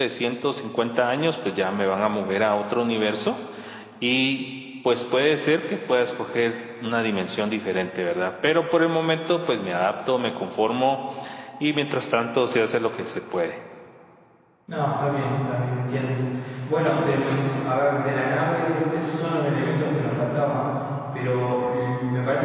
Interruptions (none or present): none